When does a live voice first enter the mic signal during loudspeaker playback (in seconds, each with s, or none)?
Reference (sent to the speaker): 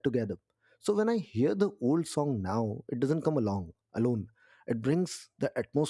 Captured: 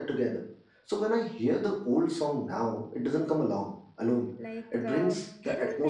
4.4 s